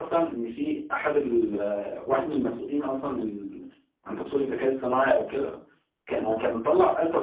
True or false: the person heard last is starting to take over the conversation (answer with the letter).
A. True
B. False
B